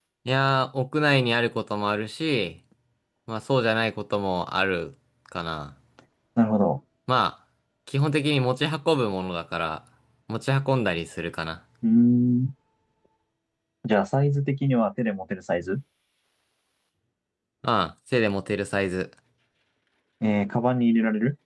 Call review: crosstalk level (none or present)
none